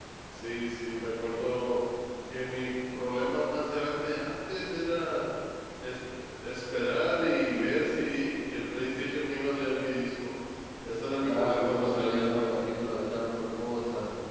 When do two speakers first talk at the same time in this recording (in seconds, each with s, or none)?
11.2 s